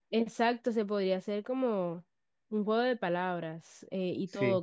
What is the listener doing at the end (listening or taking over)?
listening